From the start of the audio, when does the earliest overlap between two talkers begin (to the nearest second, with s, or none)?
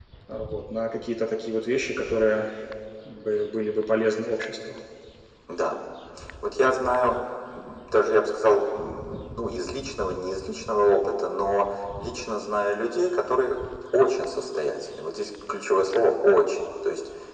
none